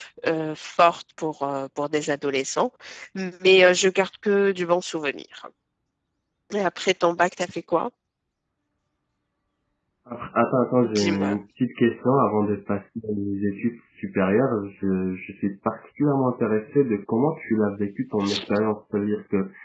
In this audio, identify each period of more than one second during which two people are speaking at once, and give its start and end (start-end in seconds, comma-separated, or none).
none